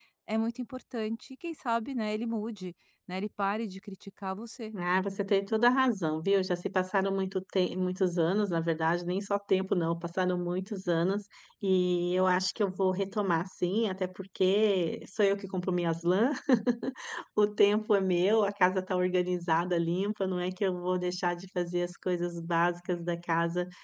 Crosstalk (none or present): none